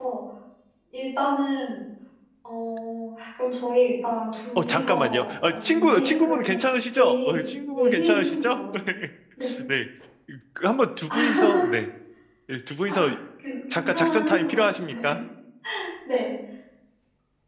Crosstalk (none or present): present